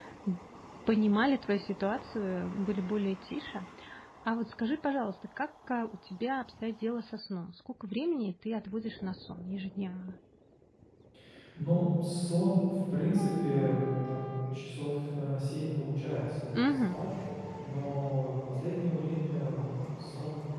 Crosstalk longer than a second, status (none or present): none